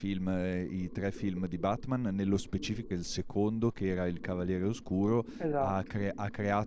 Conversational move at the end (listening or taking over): listening